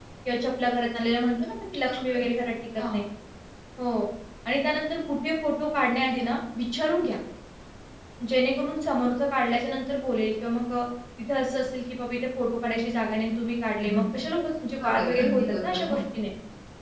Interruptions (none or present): present